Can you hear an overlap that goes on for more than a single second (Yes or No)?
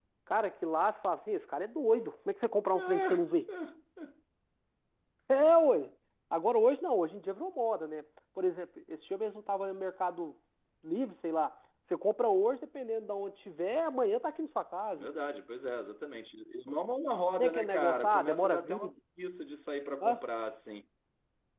Yes